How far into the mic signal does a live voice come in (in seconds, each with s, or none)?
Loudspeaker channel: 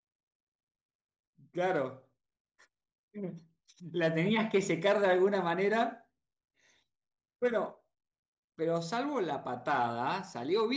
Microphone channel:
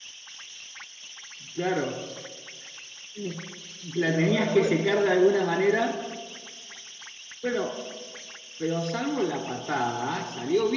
3.9 s